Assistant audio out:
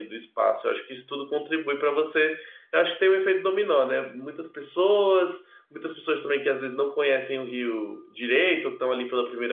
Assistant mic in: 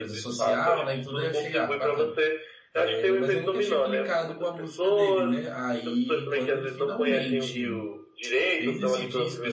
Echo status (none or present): present